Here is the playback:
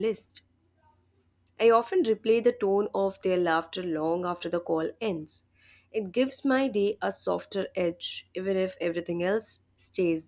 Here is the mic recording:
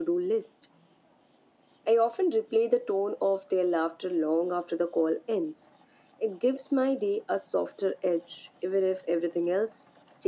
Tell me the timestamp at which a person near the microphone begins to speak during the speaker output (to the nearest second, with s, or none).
none